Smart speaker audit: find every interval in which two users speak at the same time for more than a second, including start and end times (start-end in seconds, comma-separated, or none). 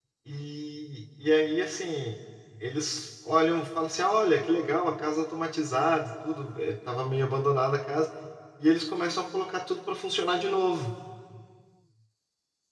none